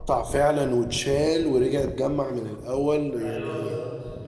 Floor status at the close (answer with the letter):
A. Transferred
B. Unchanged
A